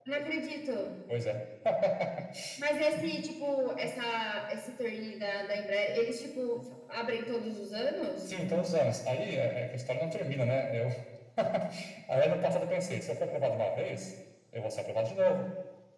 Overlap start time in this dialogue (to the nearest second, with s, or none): none